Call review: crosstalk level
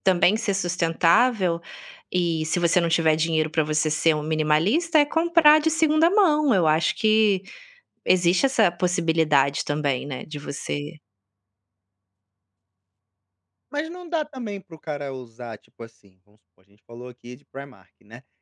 none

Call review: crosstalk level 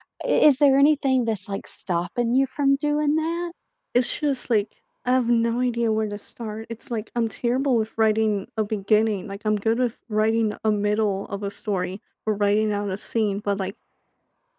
none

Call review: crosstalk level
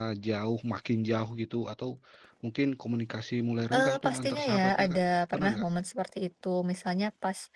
present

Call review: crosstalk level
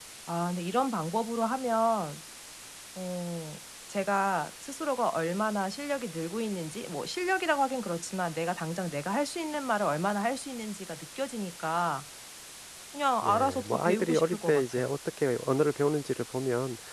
present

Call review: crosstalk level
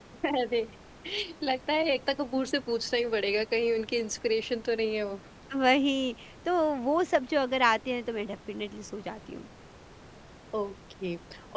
none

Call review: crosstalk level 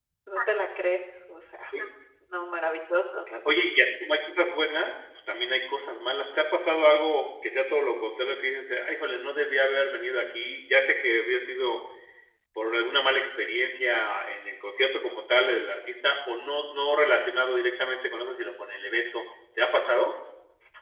none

